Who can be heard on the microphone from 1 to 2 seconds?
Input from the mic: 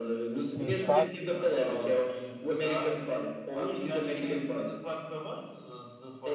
both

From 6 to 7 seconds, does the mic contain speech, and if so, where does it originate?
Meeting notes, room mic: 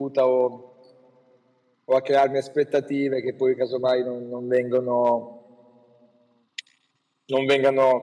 neither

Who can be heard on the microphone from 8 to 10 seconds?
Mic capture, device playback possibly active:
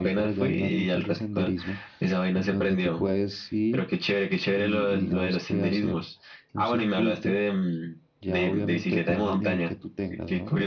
both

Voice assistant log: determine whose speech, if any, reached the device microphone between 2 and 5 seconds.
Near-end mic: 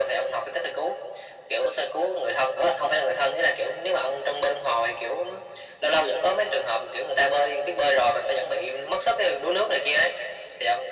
echo only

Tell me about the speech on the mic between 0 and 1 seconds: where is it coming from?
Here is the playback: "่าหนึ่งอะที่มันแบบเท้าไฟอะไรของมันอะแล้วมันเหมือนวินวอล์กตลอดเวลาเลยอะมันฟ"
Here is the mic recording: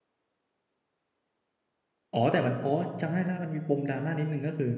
neither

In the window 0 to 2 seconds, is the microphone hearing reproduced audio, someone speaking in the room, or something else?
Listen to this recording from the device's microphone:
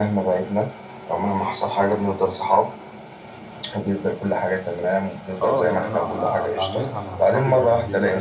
echo only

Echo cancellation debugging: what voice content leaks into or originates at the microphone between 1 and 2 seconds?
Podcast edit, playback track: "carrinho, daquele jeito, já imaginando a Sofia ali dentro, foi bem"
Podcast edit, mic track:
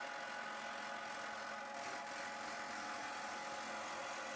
neither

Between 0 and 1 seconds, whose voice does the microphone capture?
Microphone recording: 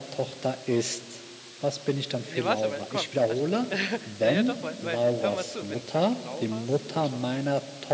echo only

